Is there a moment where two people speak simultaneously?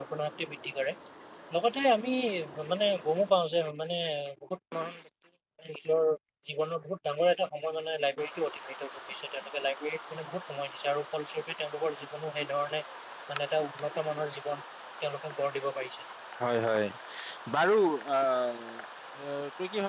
No

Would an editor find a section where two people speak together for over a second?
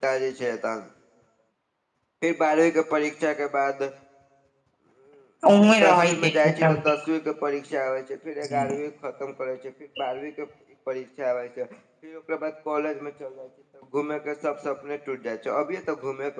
Yes, from 5.6 s

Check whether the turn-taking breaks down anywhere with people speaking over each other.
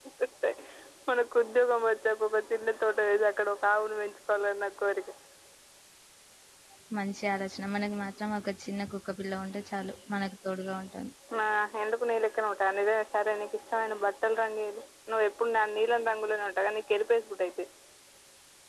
No

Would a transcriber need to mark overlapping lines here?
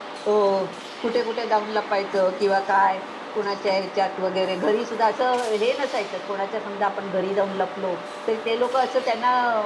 No

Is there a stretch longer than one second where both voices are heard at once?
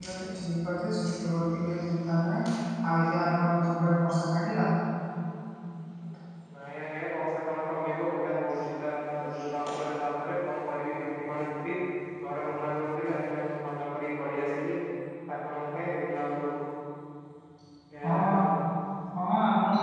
No

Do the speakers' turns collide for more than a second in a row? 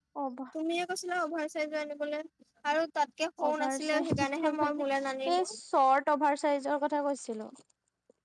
Yes, from 3.5 s

